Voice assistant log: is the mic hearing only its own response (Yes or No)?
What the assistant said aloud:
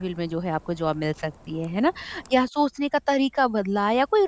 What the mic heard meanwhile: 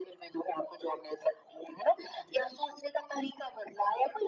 Yes